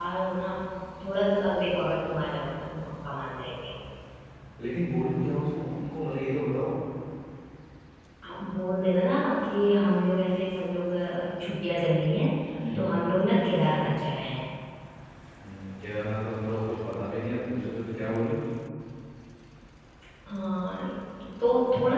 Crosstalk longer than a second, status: none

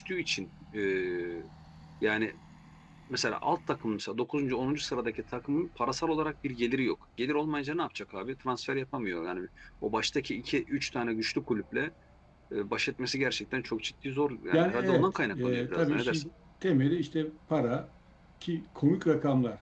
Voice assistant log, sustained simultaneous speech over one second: present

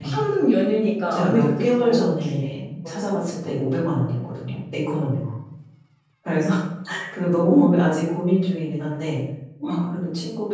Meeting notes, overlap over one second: present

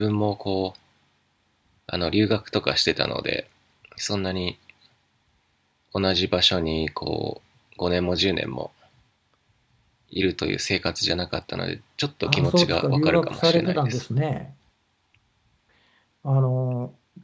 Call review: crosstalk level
present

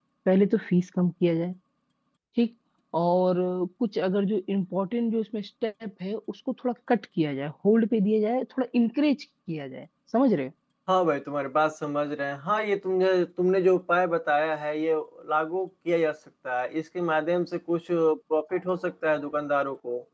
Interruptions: none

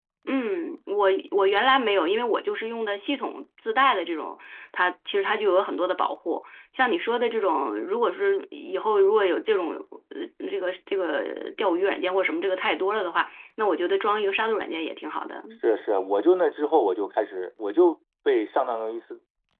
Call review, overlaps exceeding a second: none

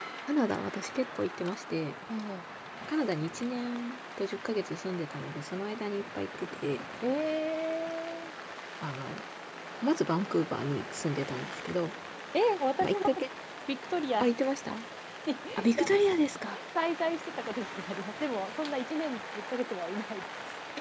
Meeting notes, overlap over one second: none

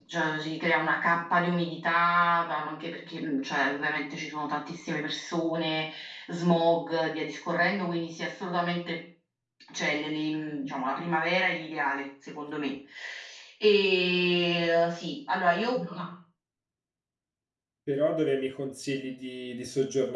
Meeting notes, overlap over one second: none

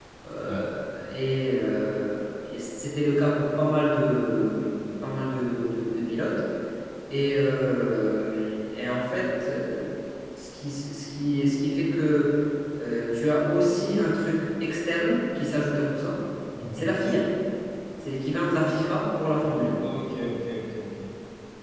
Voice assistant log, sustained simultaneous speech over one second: none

